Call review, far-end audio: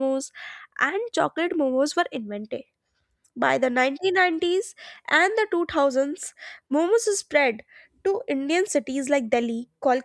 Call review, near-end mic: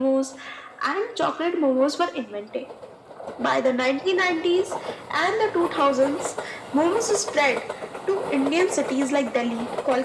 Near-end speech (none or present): none